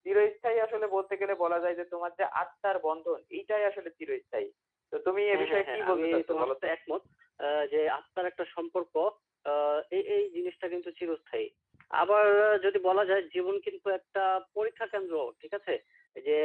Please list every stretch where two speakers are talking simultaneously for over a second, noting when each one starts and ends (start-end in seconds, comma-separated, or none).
5.3-6.7